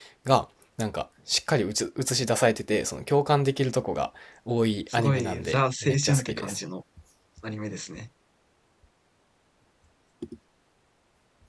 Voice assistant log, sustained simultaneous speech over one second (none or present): present